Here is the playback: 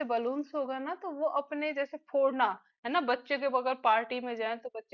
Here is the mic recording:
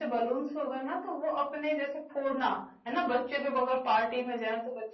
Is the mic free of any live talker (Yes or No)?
Yes